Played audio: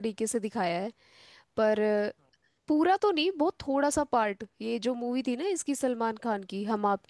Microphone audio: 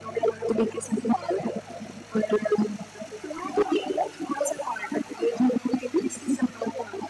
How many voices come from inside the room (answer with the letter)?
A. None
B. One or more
A